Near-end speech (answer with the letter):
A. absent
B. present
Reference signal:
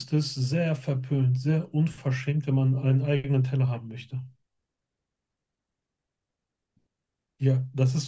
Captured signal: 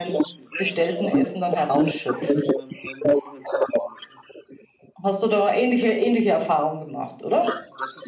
B